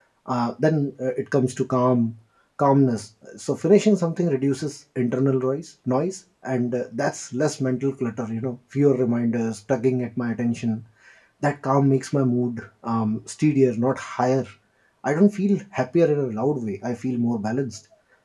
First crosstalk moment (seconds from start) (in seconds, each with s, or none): none